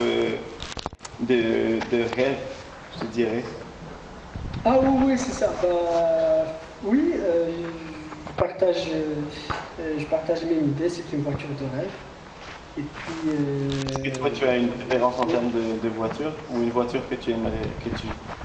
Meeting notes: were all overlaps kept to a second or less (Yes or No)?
No